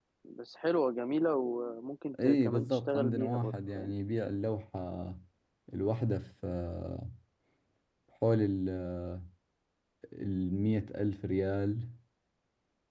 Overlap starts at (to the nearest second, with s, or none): 2 s